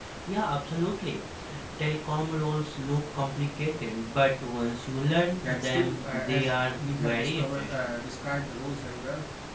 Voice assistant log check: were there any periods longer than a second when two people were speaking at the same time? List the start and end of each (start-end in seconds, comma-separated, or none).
5.4-7.9